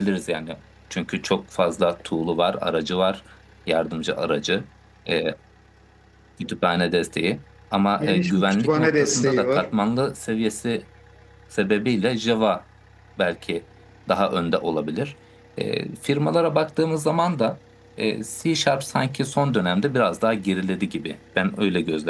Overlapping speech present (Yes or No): Yes